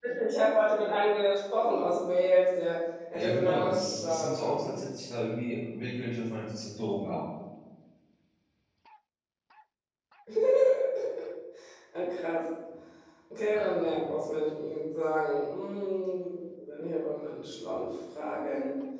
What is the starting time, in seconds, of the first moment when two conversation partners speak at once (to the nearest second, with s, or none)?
3 s